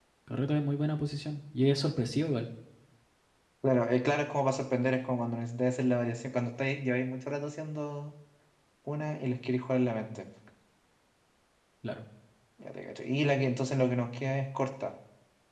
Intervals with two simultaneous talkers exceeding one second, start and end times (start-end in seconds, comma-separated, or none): none